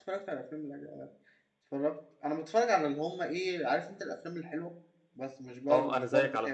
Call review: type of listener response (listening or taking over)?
taking over